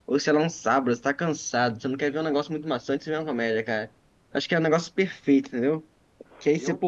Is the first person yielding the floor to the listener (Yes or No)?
No